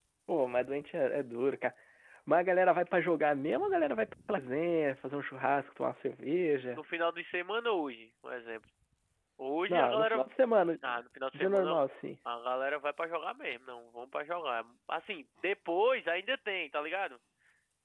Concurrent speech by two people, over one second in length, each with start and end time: none

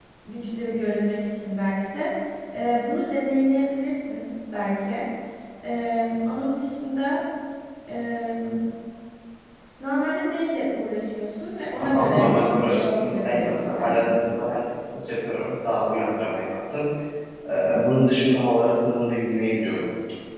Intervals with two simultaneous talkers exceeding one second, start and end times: 11.8-14.2

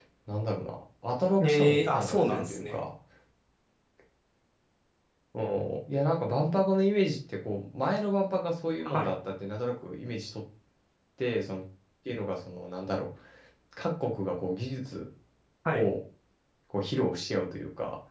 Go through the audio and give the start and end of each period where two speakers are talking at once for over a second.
1.4-2.8

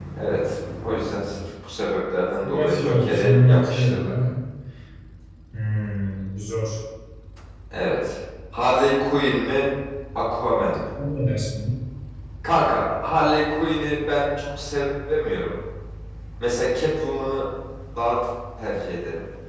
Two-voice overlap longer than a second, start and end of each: 2.4-4.1

